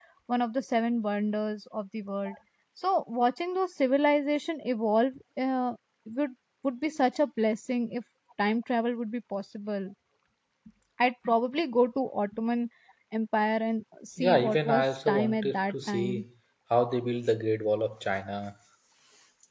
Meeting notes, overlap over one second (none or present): present